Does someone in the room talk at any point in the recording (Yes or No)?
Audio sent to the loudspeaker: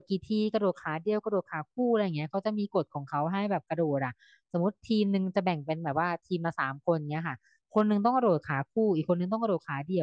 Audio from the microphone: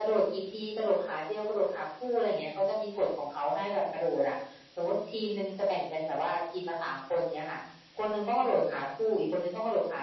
No